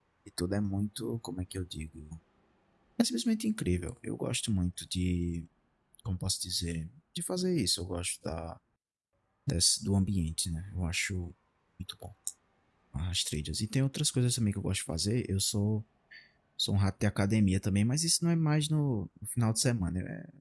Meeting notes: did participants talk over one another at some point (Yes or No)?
No